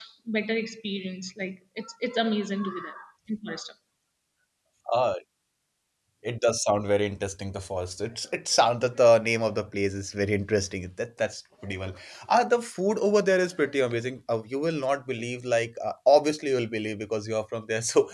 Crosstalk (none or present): none